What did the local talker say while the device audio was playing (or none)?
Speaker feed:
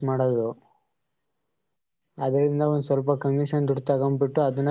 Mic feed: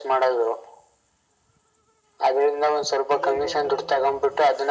ಇದೇ ಬ್ರೋ